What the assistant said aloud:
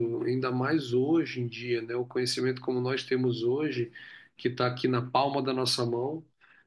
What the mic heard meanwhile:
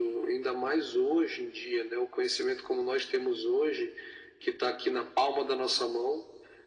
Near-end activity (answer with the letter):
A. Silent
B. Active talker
A